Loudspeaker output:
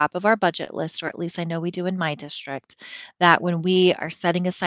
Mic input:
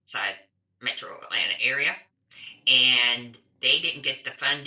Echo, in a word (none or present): none